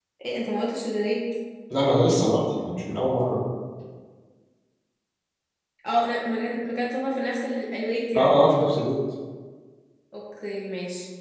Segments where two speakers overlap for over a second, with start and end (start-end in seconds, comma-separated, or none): none